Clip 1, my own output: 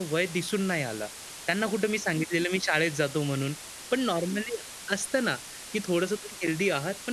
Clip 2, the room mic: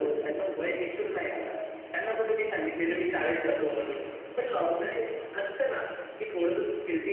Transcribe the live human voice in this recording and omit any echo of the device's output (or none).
none